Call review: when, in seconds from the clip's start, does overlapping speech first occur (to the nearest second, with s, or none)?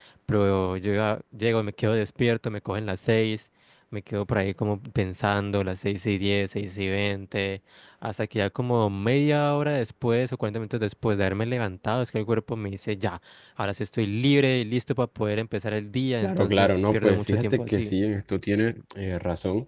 16 s